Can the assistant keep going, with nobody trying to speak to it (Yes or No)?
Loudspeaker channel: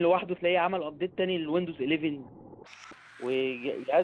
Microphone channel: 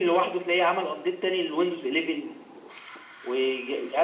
Yes